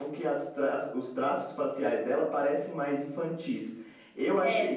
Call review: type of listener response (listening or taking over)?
listening